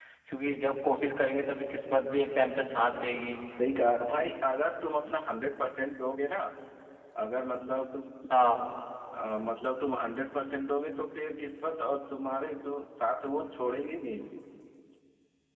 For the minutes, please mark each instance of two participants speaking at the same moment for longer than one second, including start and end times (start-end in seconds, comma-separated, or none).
none